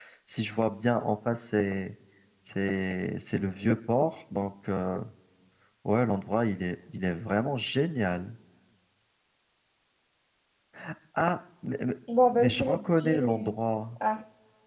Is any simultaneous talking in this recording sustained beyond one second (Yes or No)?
Yes